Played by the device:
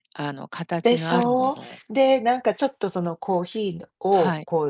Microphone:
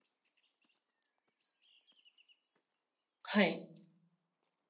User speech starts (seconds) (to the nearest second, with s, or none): 3 s